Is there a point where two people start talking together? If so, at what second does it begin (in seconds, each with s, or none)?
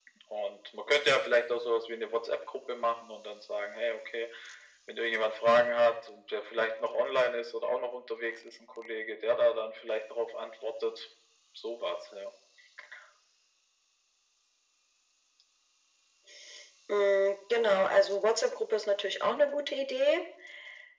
none